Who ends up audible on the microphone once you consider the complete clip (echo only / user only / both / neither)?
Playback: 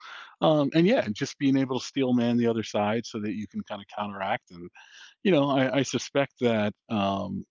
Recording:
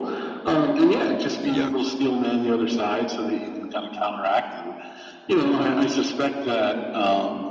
both